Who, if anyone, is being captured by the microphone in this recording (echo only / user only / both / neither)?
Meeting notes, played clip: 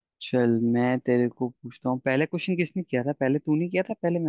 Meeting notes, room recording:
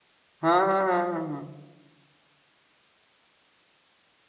user only